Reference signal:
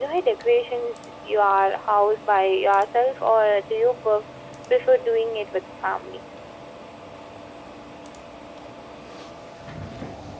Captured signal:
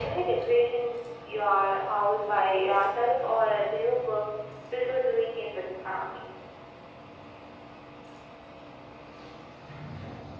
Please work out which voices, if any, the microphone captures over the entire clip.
echo only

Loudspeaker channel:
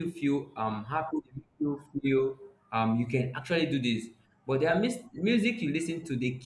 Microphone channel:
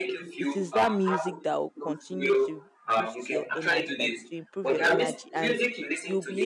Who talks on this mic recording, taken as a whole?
both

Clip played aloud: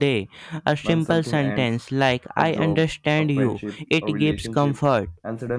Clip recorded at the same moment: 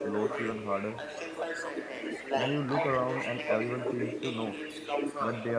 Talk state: both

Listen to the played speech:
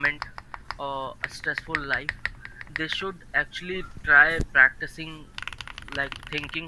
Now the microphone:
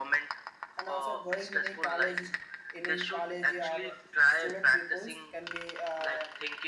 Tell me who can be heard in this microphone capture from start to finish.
both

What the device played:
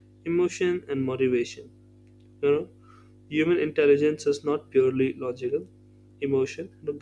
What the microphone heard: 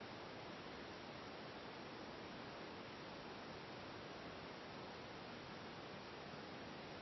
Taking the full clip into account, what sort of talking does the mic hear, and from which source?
neither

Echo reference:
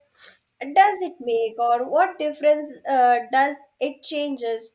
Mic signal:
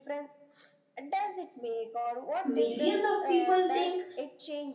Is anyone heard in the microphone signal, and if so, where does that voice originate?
both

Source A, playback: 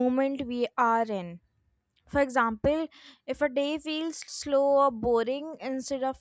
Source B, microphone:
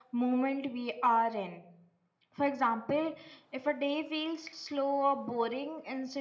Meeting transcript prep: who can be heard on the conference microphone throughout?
echo only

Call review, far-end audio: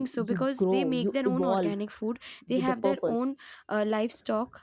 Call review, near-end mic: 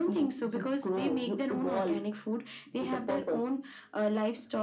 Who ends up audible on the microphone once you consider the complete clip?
echo only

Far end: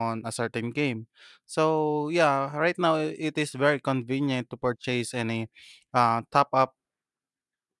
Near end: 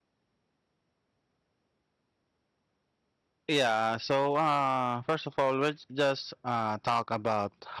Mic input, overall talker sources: user only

